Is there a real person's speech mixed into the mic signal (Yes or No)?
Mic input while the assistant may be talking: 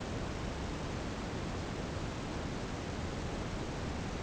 No